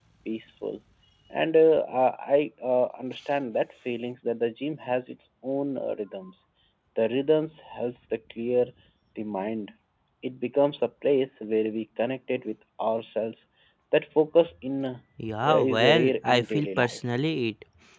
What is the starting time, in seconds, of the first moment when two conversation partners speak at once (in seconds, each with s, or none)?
15.4 s